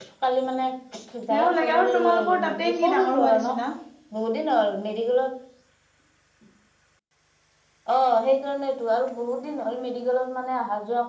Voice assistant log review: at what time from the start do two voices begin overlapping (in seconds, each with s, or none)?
1.3 s